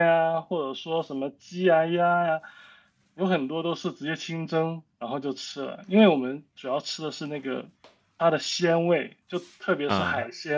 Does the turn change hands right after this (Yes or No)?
No